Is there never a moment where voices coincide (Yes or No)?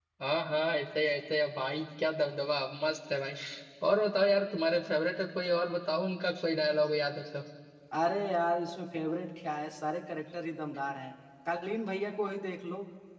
Yes